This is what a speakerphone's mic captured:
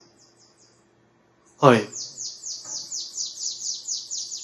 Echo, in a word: none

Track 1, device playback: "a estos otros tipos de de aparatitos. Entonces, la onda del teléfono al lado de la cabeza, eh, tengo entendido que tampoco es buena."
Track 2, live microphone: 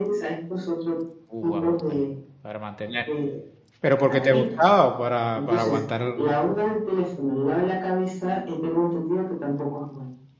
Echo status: present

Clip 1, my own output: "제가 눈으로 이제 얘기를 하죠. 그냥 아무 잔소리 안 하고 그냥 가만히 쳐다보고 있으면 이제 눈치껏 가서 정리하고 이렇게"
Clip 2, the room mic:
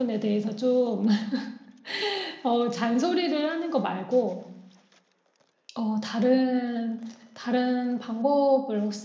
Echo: none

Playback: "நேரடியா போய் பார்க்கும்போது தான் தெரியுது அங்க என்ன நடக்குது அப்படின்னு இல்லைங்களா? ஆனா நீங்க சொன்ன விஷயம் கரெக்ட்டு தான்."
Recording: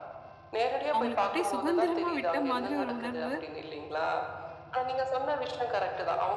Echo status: present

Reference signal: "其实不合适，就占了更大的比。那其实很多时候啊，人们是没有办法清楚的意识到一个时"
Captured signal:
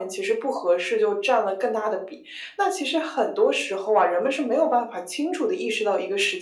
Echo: present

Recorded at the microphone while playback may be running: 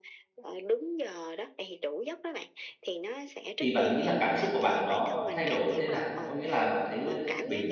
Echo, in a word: present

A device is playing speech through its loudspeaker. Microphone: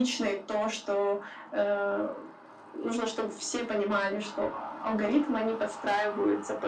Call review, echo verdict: present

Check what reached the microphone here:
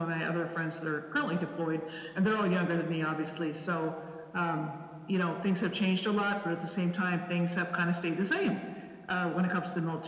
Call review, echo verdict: present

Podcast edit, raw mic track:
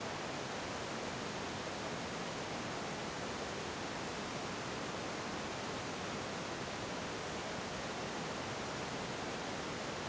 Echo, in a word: none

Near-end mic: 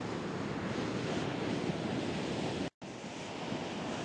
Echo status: none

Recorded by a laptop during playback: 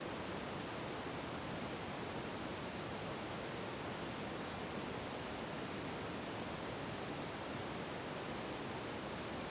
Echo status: none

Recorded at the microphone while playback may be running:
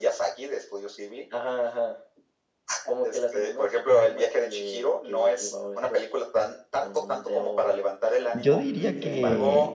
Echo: present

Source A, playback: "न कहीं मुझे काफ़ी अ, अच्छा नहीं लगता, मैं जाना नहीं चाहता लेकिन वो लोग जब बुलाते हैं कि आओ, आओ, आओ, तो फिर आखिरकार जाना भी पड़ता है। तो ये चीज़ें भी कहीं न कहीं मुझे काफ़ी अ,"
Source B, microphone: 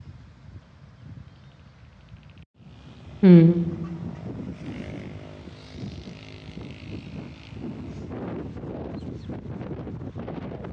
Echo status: none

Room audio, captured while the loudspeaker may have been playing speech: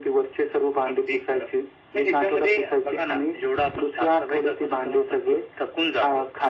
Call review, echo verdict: present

